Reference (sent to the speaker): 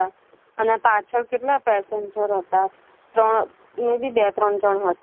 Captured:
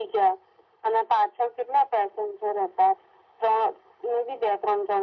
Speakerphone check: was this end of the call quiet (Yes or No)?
Yes